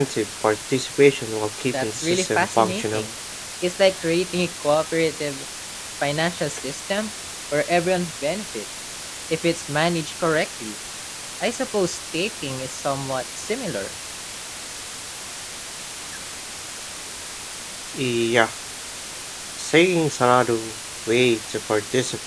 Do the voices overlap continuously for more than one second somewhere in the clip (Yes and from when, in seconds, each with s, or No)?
Yes, from 1.7 s